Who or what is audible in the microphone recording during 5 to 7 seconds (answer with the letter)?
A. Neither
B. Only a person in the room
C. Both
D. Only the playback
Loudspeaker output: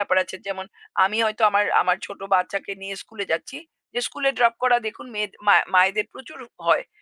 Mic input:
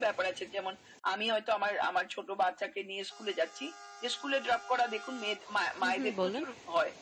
C